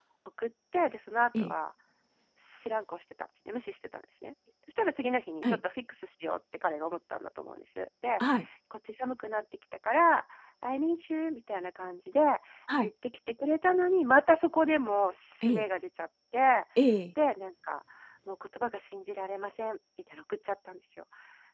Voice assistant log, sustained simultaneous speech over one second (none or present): none